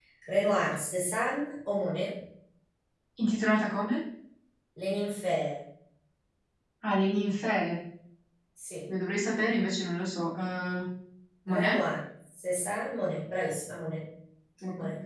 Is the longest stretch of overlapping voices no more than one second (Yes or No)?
Yes